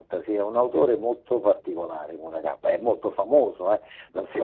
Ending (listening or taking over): taking over